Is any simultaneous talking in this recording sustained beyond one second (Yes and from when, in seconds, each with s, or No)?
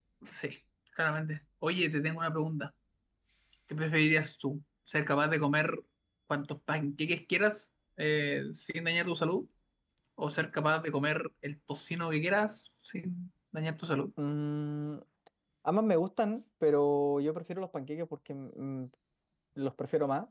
No